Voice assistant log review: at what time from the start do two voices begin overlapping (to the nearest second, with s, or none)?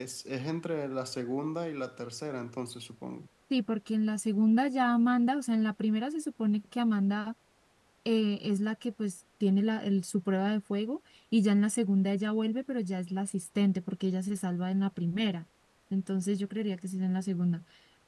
none